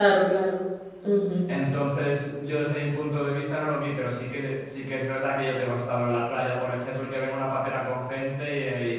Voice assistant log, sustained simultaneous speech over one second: none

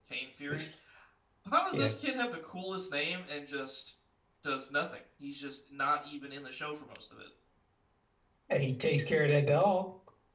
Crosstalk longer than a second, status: none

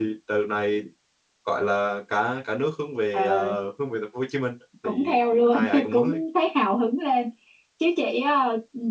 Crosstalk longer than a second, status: present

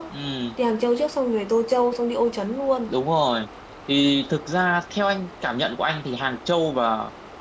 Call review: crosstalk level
none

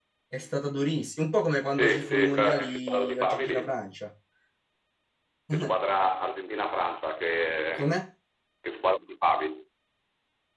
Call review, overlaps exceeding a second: present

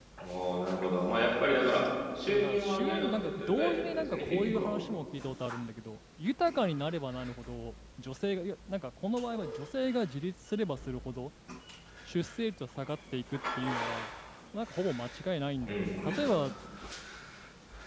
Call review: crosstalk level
present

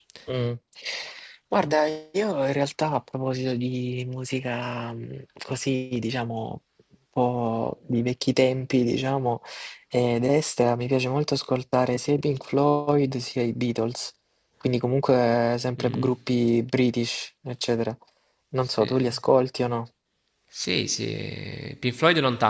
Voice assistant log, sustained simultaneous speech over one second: none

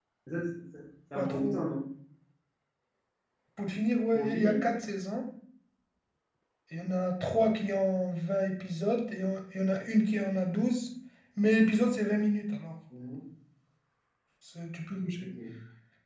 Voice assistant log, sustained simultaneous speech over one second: none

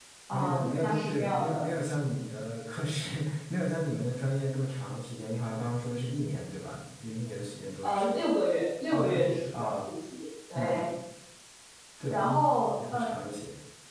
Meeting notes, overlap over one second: present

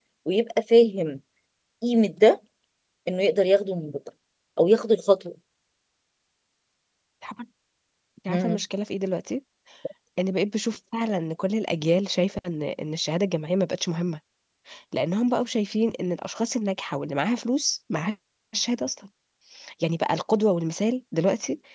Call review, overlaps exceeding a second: none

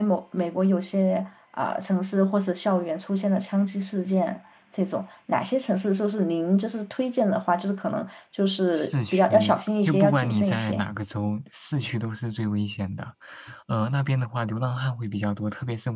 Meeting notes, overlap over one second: present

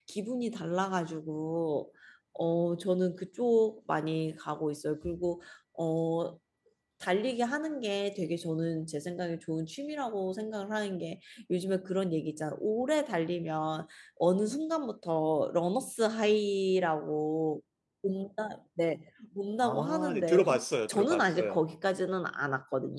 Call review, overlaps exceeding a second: present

